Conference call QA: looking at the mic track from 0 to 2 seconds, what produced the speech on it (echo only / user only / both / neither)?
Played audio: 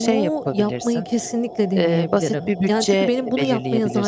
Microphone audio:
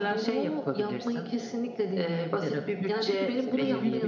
echo only